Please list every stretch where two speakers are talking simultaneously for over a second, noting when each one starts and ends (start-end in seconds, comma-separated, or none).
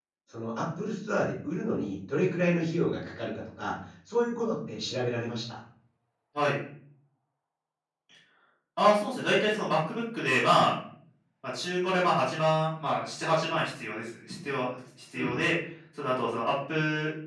none